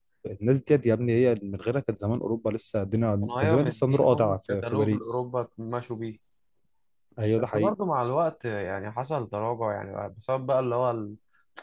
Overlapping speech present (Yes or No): Yes